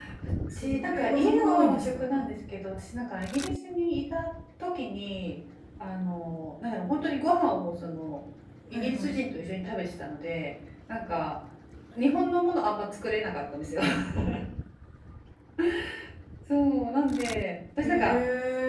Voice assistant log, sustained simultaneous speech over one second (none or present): present